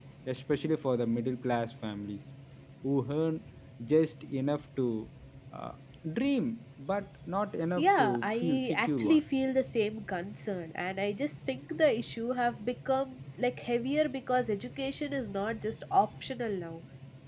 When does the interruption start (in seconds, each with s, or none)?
7.8 s